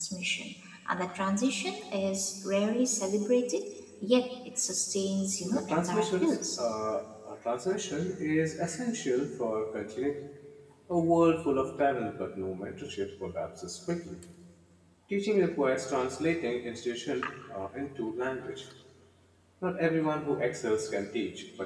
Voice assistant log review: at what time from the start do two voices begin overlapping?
5.4 s

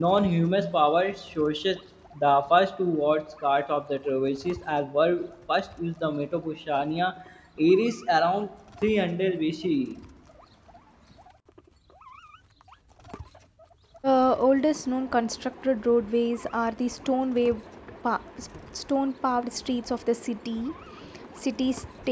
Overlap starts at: none

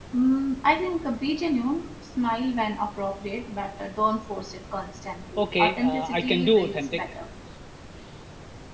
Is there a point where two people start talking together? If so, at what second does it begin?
5.4 s

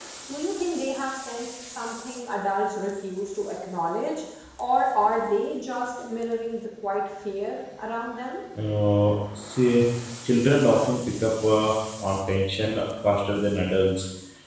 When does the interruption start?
none

